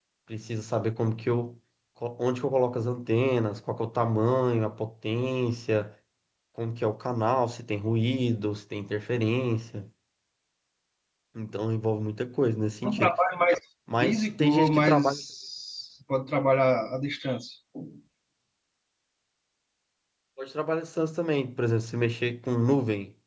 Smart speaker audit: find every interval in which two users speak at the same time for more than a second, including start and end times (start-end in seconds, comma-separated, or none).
14.0-15.2